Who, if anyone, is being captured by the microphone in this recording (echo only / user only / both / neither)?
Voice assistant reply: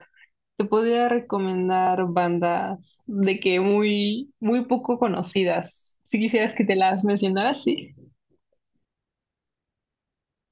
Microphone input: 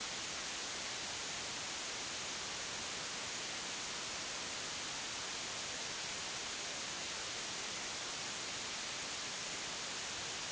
neither